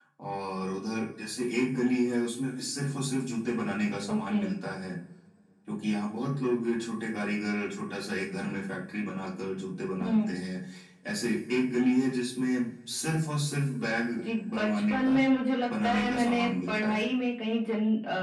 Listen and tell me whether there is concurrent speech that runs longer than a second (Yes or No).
Yes